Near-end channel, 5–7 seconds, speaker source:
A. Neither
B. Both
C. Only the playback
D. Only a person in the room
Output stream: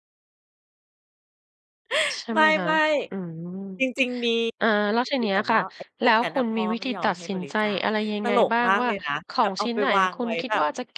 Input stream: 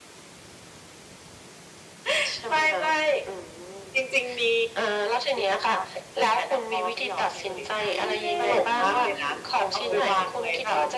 C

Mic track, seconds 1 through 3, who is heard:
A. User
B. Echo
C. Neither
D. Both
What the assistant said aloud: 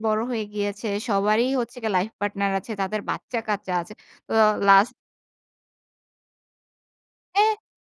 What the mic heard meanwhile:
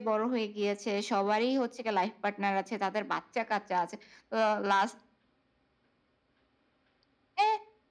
B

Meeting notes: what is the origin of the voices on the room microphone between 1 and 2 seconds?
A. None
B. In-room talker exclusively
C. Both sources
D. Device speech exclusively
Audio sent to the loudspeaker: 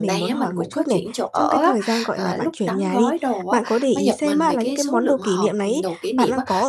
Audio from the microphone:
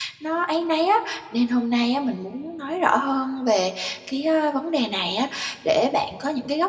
B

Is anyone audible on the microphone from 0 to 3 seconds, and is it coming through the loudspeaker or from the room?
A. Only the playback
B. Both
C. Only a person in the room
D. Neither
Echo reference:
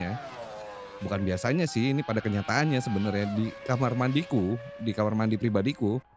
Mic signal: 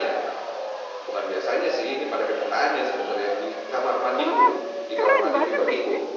A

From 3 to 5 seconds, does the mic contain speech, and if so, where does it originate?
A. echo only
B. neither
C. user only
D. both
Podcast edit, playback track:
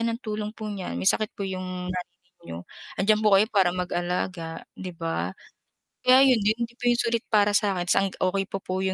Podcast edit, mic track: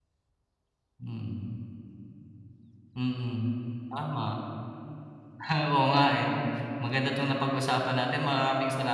C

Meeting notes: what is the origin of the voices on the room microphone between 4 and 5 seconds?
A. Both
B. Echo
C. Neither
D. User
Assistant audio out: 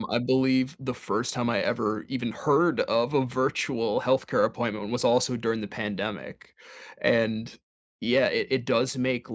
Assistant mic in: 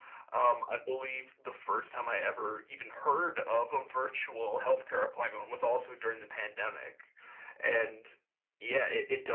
B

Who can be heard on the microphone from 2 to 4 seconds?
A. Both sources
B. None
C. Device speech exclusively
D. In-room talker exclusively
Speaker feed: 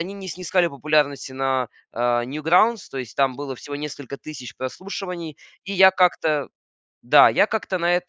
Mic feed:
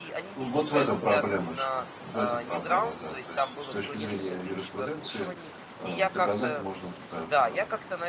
A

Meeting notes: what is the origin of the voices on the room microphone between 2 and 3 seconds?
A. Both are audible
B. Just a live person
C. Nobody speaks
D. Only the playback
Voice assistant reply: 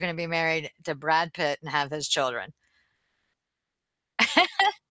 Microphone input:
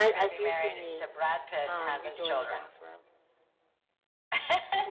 A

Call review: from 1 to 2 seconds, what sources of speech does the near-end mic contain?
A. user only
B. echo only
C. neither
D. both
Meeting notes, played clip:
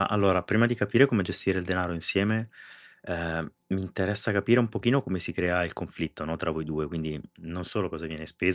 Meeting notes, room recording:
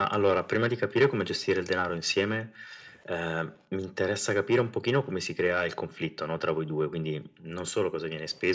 B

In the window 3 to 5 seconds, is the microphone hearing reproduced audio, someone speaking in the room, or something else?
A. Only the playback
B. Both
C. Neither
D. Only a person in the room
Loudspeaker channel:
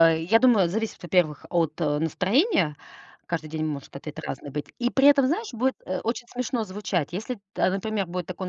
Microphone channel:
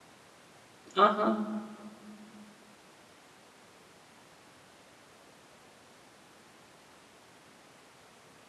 C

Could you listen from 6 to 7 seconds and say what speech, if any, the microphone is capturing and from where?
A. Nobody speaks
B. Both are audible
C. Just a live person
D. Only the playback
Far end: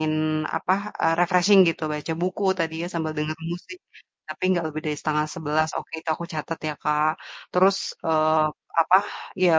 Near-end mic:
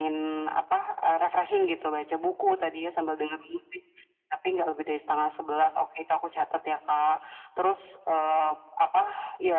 D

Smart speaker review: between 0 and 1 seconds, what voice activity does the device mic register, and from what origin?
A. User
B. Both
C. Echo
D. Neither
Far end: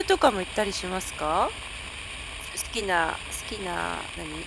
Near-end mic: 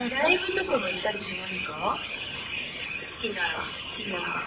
C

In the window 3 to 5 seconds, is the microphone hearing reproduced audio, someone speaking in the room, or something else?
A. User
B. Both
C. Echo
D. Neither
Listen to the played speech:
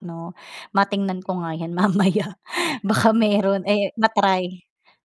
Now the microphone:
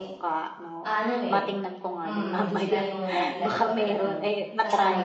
B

